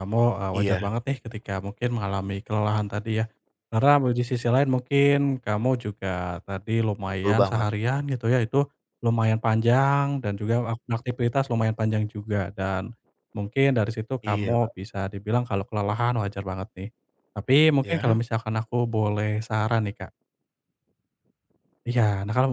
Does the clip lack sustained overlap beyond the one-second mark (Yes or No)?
Yes